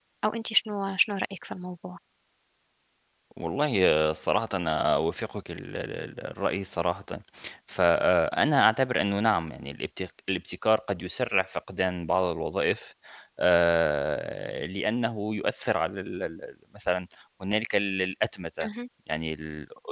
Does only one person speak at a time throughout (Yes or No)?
Yes